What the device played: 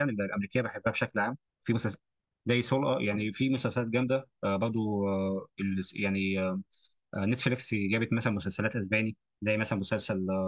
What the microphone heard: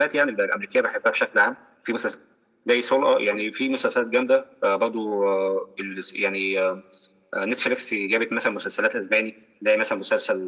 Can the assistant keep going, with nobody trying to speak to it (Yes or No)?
Yes